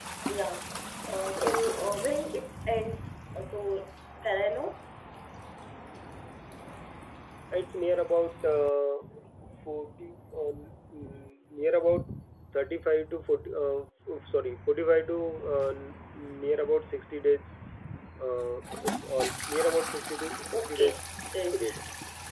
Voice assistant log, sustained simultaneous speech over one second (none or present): none